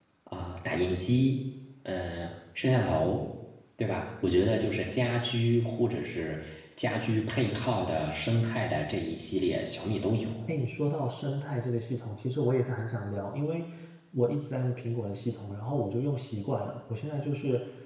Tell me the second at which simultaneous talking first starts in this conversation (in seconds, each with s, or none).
none